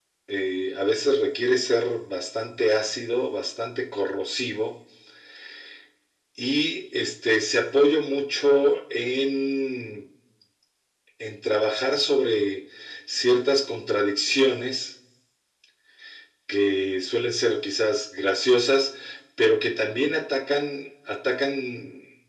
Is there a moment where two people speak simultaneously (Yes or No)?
No